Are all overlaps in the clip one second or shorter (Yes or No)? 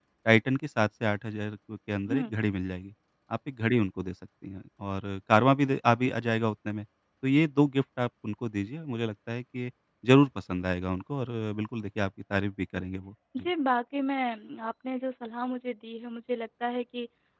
Yes